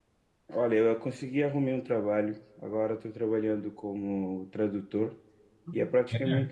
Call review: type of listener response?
listening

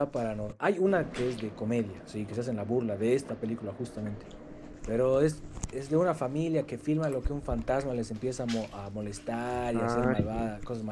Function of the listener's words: listening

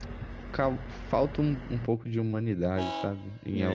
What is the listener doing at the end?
taking over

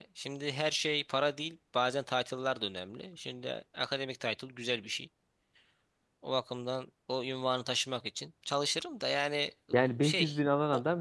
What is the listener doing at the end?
taking over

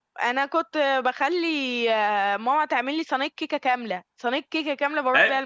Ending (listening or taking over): taking over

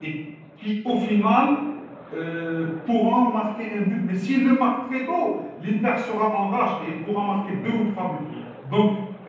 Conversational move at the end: listening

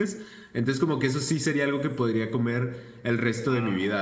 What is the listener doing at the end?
taking over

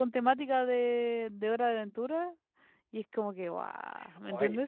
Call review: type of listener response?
taking over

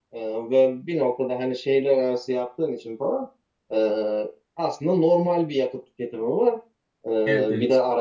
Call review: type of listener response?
listening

